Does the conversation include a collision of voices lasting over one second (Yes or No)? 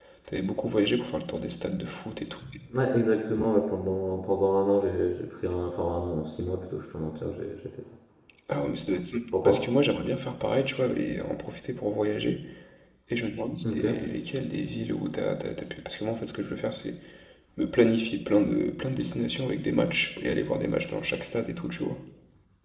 No